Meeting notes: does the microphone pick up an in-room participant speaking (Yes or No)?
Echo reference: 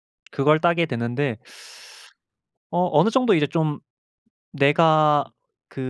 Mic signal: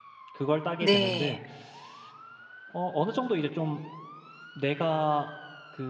Yes